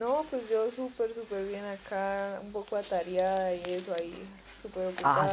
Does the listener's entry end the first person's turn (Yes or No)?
Yes